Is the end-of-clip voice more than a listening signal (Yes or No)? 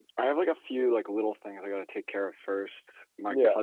No